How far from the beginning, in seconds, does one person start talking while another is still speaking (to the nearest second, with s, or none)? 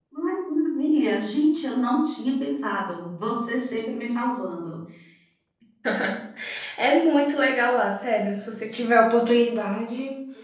none